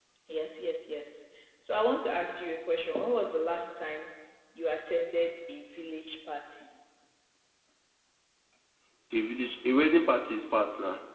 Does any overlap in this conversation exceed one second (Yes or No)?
No